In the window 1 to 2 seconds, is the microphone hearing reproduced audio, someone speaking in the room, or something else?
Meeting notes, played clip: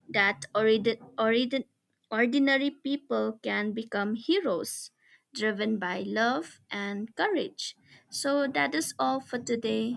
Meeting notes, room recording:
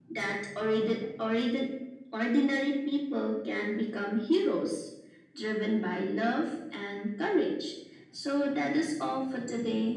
echo only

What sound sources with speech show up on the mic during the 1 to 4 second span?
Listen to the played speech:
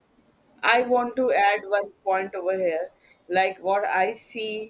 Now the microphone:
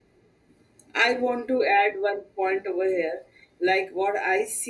echo only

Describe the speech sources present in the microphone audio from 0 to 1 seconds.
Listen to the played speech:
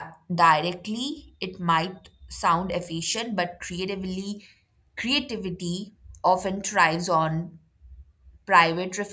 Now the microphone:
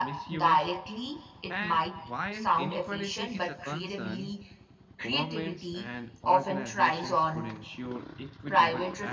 both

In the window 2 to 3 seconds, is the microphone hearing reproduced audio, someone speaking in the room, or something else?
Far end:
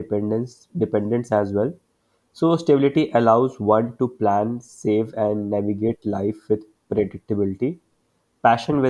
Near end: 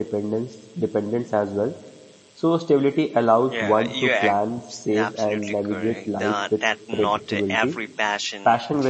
echo only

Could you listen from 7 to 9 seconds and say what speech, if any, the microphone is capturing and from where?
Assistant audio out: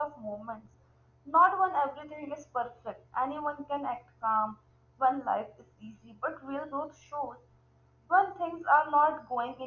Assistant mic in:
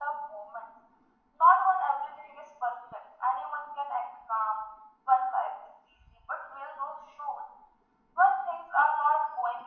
echo only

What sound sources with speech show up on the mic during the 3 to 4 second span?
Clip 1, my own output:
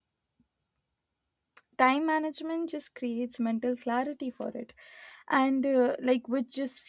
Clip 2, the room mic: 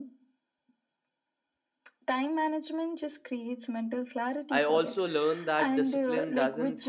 echo only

